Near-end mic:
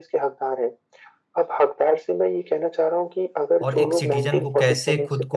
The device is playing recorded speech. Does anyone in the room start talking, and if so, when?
3.6 s

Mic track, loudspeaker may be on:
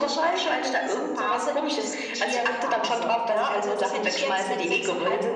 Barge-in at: none

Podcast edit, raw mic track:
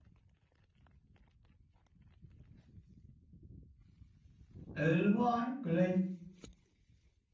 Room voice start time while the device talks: 4.7 s

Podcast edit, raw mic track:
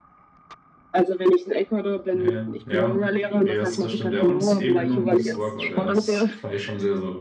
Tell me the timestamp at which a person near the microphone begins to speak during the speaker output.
2.1 s

